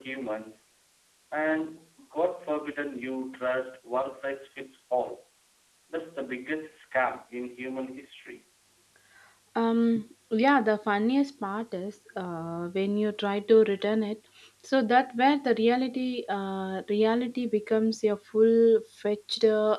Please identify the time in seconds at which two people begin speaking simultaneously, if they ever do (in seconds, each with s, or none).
none